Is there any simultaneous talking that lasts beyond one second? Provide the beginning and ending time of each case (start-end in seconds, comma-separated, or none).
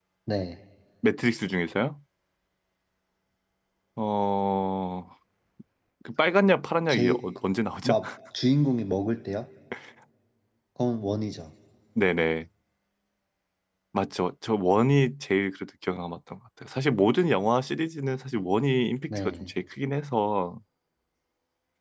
none